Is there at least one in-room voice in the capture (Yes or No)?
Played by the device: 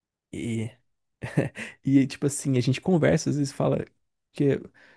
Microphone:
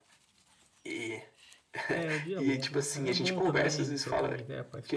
Yes